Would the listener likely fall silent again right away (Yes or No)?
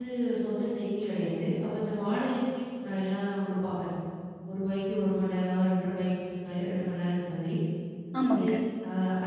Yes